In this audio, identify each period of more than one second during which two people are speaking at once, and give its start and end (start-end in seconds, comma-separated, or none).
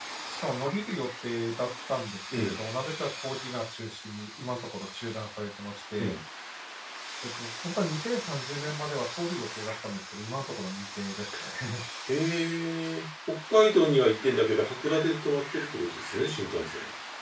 none